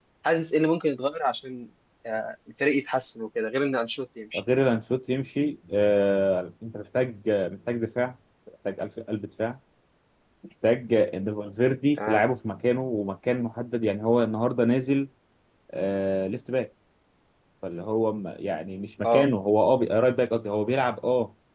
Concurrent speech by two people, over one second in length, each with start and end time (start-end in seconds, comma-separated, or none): none